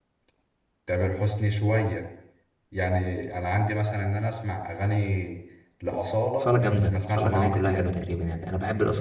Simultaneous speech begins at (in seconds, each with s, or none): 6.4 s